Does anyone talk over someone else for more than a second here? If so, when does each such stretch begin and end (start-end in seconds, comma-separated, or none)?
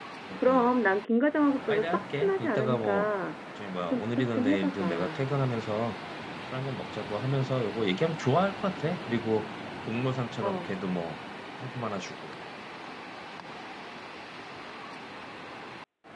1.7-3.1, 3.9-5.2